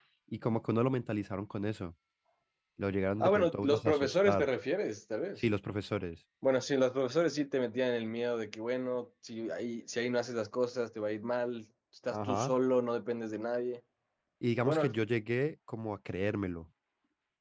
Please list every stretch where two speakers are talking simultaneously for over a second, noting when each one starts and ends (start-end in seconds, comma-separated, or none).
3.2-4.5